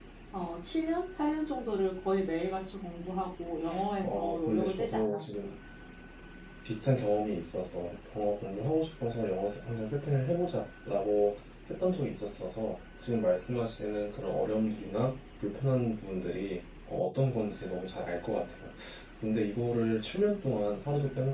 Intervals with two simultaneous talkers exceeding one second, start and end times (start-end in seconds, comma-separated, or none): 4.0-5.5